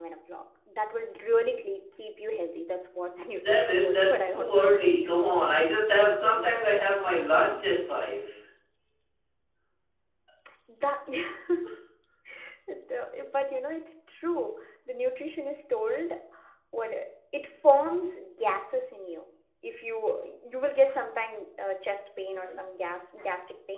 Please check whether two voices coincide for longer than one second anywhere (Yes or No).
Yes